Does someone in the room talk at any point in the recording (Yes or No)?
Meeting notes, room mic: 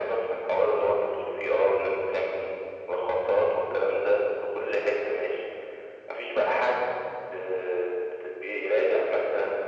No